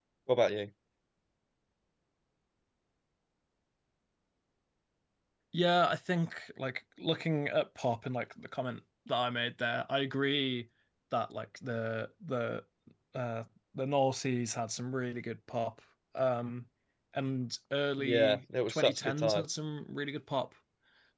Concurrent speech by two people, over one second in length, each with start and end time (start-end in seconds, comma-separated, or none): 18.0-19.4